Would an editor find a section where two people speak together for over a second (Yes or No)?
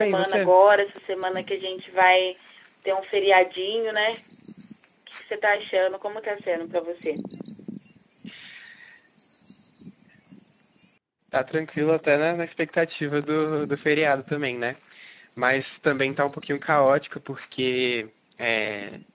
No